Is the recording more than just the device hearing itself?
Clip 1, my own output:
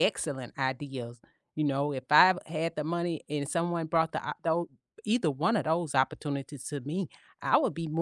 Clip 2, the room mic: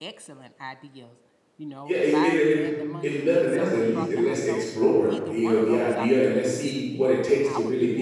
Yes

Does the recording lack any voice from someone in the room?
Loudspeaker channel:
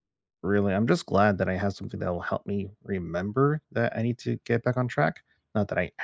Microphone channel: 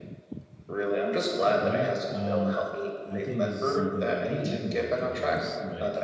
No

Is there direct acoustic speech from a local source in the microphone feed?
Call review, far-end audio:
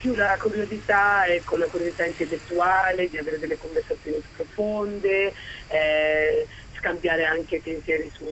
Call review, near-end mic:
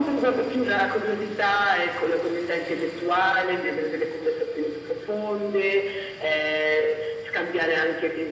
No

